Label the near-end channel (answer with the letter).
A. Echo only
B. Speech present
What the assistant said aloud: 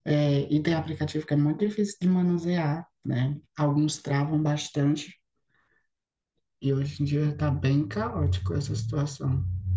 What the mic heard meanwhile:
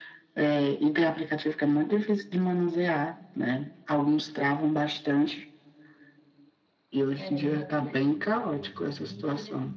B